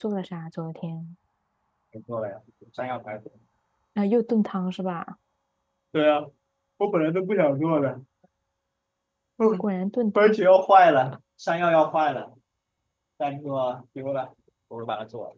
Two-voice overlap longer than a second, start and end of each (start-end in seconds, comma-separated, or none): none